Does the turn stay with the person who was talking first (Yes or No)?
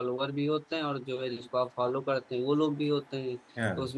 Yes